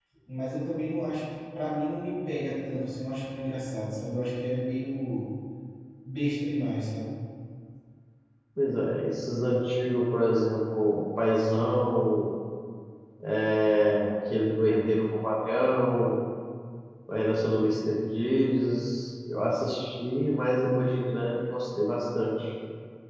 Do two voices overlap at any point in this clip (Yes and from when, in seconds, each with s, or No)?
No